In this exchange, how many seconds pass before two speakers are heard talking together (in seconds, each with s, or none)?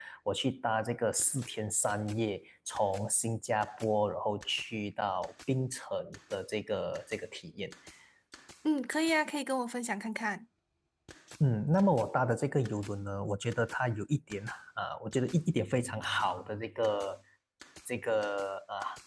none